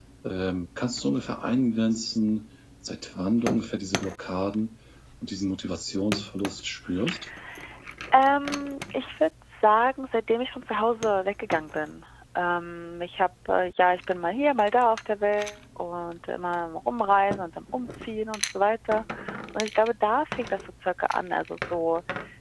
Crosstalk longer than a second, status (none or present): none